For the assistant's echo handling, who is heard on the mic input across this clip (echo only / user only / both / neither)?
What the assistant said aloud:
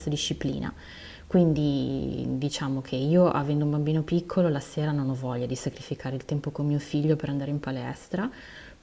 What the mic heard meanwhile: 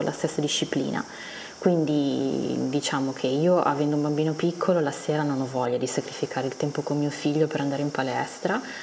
echo only